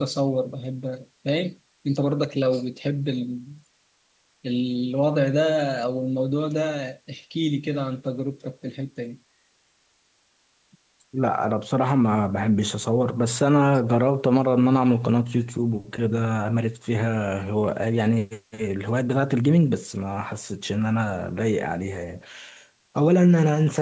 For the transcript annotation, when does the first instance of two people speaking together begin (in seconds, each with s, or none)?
none